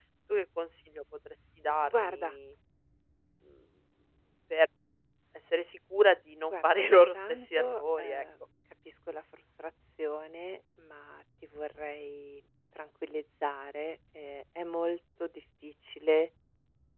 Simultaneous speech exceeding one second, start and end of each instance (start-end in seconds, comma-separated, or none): 6.4-8.2